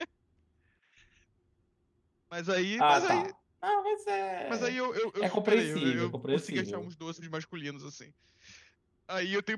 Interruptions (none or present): present